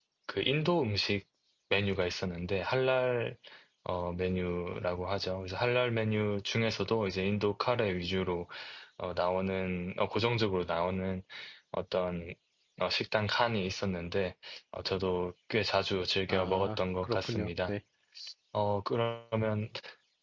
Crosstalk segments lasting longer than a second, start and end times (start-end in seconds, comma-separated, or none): 16.3-17.7